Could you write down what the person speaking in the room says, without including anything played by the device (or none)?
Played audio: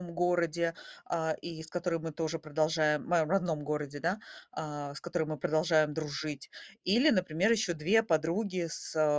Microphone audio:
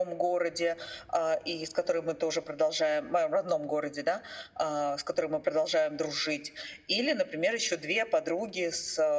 none